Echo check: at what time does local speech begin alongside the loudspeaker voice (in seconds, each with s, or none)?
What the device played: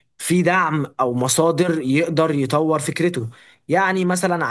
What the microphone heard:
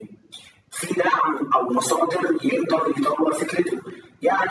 none